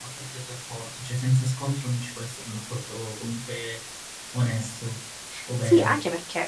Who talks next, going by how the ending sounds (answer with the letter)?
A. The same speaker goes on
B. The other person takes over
B